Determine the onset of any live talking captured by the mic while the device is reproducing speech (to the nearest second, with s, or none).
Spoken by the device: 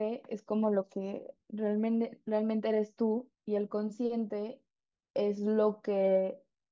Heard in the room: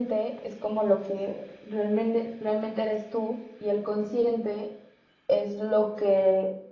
none